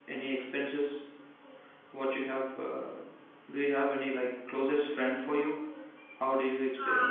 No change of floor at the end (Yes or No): No